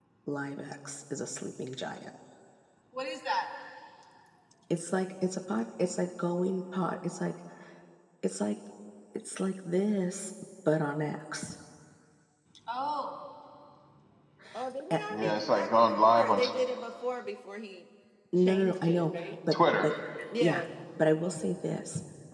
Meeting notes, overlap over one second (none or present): present